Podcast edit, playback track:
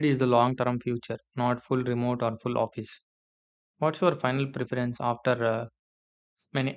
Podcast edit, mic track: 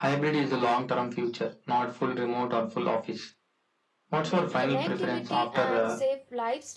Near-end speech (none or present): present